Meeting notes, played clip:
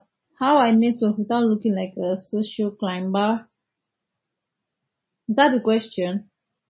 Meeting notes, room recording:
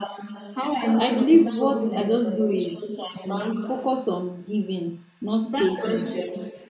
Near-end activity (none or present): present